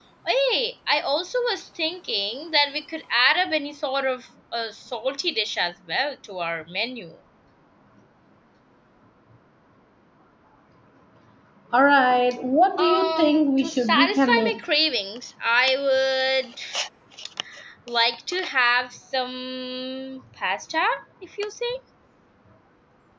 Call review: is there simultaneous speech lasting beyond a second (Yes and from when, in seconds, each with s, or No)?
Yes, from 12.8 s